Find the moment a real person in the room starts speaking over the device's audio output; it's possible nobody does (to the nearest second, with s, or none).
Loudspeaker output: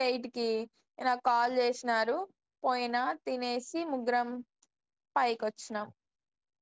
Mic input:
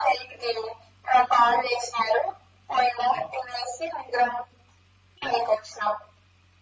none